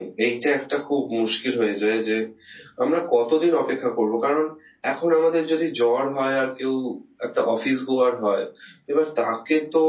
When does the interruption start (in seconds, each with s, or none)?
none